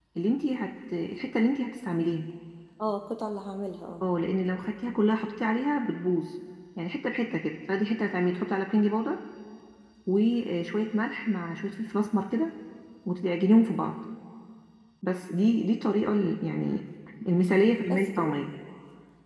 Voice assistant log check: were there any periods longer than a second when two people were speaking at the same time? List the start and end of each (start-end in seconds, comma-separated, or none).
none